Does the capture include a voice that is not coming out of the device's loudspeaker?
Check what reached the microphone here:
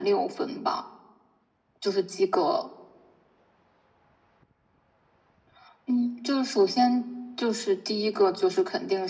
No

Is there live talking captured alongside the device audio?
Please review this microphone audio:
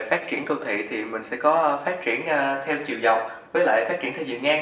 No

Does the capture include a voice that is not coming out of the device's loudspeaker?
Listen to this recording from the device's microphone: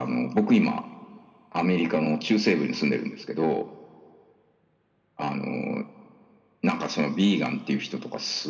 No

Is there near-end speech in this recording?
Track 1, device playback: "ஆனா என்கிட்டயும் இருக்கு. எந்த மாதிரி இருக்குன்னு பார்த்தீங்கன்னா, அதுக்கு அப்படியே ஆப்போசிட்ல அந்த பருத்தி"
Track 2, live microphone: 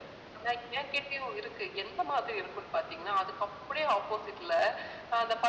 No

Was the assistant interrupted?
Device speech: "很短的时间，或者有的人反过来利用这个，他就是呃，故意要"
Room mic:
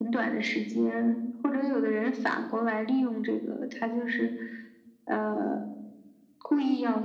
No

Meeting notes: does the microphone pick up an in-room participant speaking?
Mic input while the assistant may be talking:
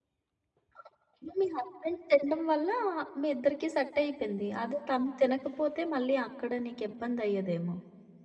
Yes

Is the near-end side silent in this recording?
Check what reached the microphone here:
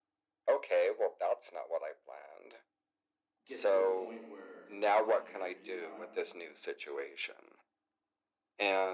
No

